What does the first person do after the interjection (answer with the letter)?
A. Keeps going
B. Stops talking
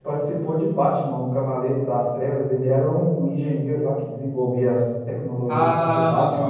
B